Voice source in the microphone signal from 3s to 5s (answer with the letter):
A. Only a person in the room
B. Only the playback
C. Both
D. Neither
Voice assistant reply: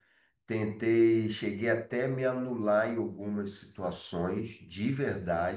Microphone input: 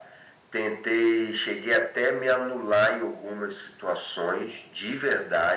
B